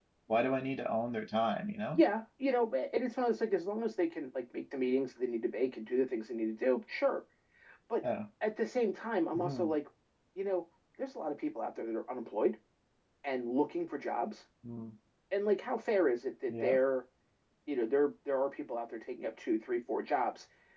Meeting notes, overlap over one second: none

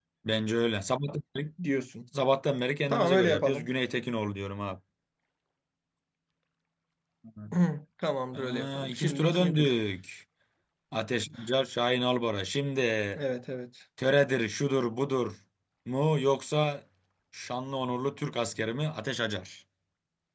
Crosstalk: present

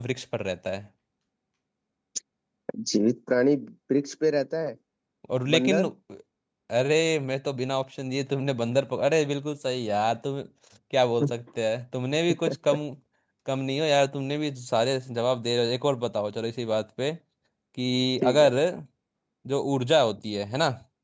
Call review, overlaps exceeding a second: none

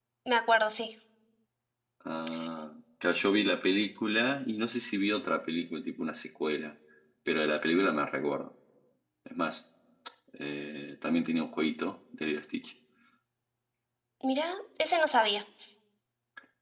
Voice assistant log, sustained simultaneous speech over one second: none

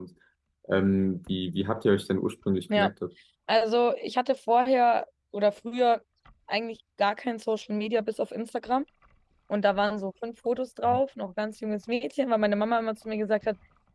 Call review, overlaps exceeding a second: none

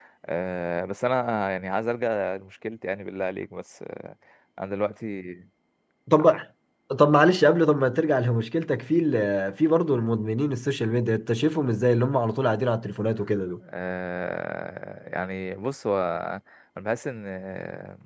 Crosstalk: none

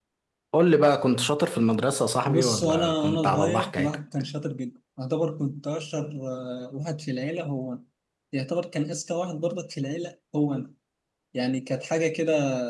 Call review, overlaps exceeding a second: present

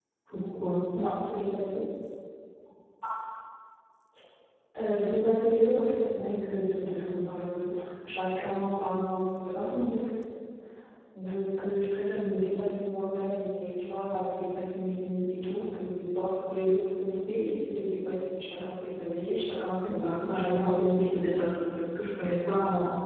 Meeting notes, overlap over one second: present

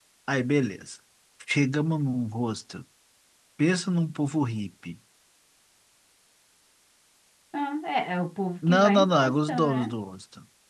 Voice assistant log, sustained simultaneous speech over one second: present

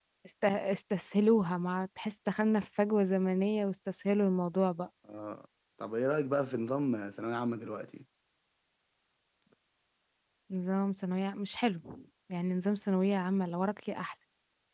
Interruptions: none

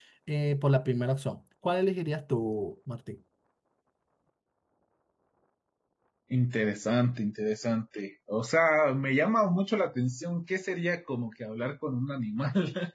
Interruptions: none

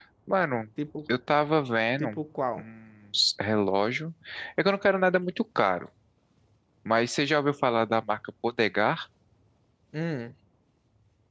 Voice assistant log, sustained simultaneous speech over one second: none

